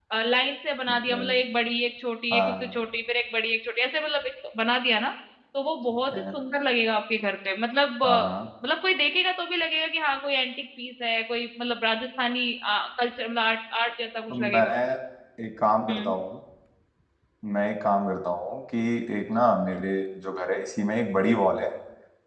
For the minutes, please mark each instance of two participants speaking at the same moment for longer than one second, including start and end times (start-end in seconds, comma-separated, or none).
none